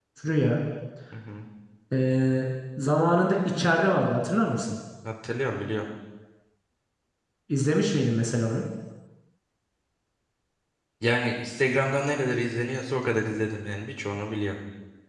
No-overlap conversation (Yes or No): Yes